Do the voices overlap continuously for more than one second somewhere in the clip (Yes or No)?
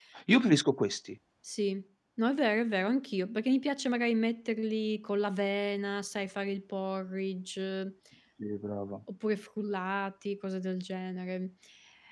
No